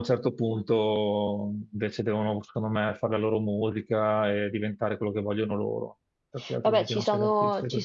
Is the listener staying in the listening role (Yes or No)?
No